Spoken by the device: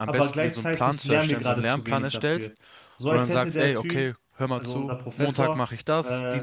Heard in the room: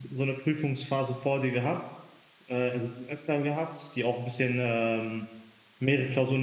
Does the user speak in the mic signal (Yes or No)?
Yes